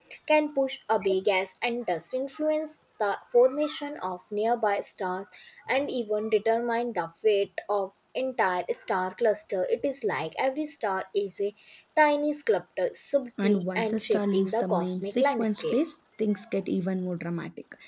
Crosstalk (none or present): present